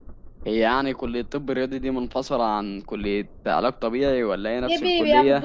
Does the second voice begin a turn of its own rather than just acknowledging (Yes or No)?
Yes